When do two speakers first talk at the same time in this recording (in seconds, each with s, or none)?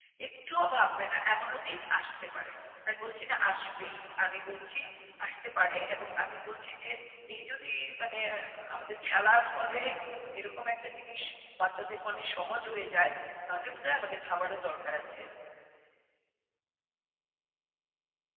none